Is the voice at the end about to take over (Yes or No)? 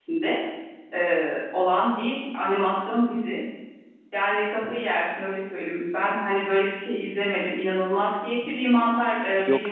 No